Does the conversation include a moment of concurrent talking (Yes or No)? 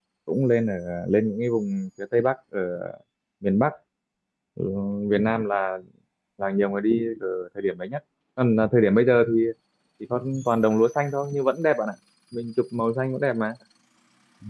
No